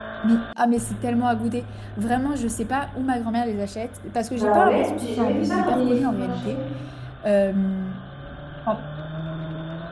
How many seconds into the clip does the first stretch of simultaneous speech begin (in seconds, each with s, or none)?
4.3 s